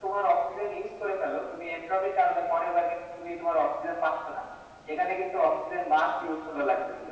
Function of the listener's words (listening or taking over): listening